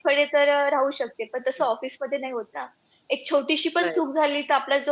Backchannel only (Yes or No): Yes